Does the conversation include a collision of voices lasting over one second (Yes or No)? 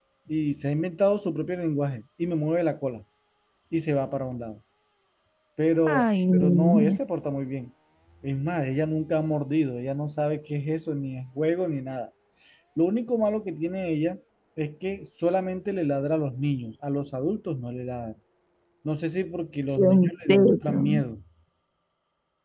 Yes